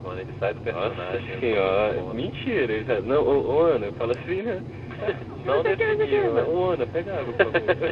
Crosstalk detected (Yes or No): Yes